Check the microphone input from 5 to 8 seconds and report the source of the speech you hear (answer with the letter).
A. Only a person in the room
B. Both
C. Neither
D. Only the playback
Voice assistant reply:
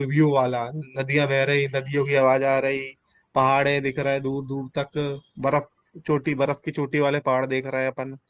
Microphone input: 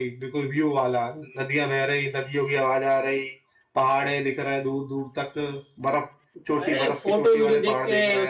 B